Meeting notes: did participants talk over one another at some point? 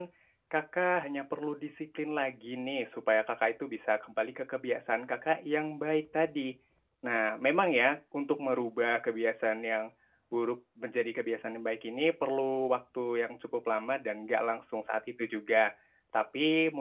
No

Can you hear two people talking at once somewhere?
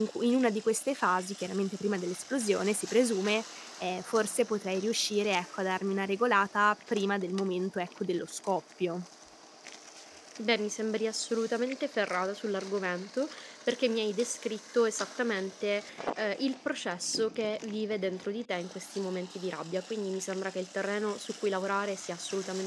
No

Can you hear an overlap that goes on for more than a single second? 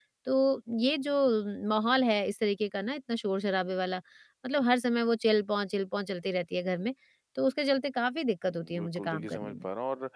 Yes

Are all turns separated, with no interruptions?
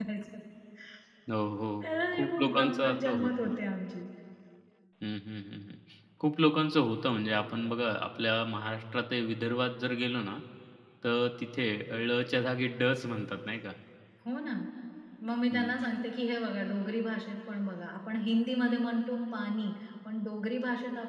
No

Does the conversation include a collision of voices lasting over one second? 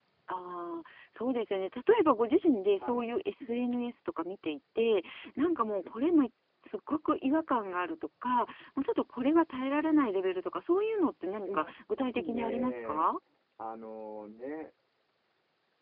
Yes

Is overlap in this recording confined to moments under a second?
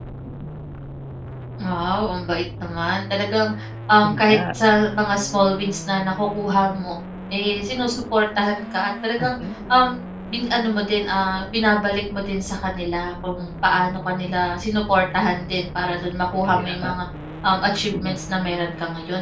Yes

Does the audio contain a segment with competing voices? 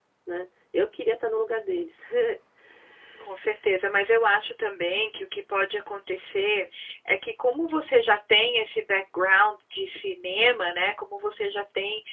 No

